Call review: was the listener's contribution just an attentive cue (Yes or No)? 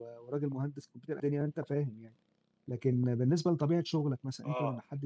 Yes